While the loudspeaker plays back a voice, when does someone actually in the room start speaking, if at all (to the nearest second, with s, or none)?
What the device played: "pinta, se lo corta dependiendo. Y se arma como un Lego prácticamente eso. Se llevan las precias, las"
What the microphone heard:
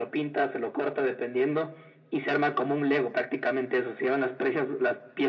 none